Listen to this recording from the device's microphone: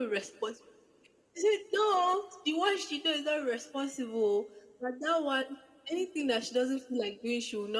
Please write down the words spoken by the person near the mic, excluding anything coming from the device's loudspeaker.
none

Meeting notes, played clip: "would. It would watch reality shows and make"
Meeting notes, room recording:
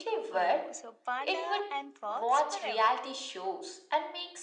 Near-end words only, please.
Oh, so panda and fox forever.

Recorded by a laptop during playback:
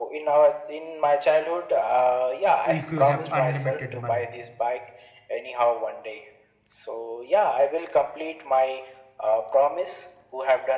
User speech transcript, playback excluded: if you have unlimited money?

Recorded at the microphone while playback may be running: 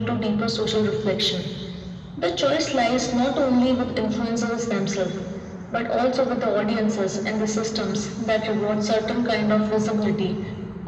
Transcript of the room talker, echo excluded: none

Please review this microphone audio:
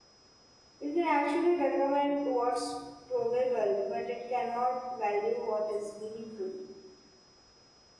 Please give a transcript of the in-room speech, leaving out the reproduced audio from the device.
it can actually recommend what's probable but it cannot value what is meaningful

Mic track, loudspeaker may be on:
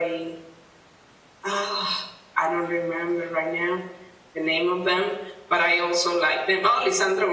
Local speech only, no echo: none

